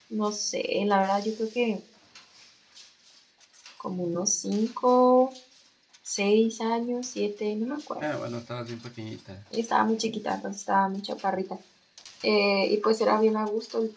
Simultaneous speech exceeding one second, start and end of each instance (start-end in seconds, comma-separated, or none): none